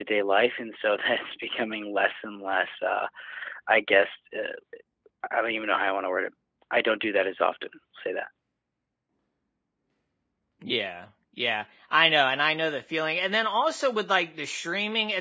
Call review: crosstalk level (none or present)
none